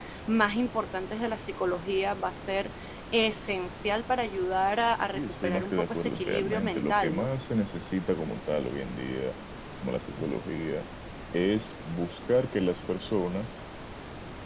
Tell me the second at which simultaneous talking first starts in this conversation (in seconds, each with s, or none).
5.1 s